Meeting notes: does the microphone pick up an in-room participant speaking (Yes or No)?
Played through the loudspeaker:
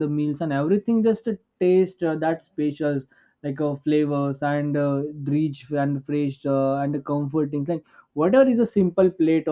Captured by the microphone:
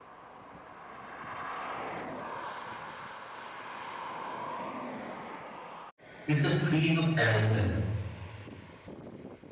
Yes